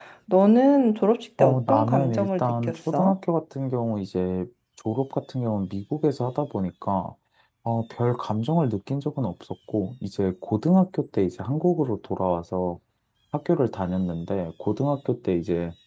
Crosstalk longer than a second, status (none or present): present